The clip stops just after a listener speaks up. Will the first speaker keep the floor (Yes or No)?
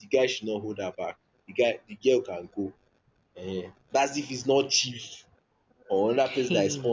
Yes